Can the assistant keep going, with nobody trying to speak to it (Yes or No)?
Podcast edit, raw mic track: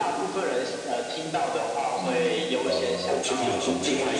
No